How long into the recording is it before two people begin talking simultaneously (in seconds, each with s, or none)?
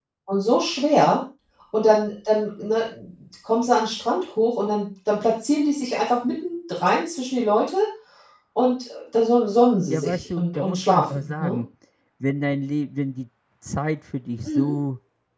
9.9 s